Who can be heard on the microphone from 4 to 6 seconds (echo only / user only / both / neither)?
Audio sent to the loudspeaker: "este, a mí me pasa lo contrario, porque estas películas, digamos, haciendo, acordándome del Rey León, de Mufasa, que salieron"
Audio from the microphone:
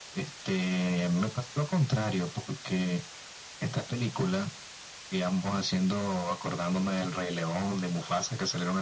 echo only